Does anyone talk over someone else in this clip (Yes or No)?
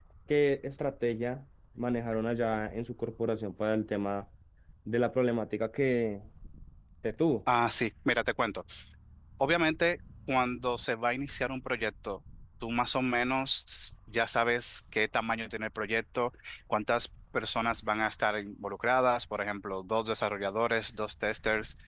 No